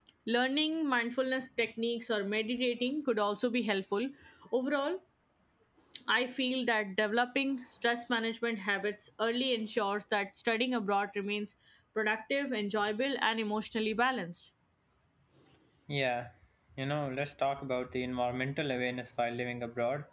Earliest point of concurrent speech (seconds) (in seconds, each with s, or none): none